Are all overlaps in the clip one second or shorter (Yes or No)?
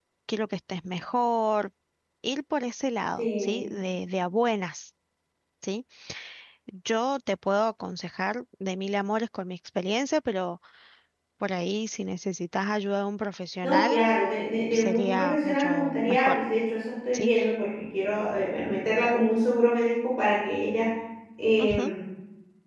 No